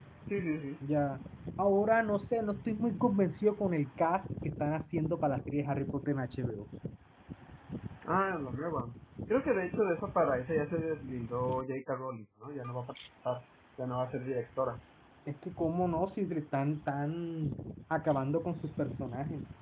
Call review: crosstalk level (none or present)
none